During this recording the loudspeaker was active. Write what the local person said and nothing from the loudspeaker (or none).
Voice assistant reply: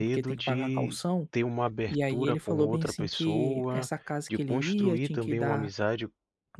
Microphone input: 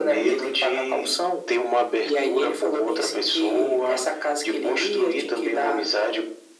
none